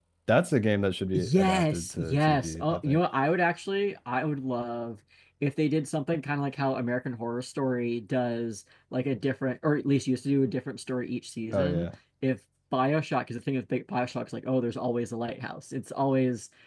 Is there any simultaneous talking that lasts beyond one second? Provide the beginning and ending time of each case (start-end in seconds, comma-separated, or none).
1.1-3.0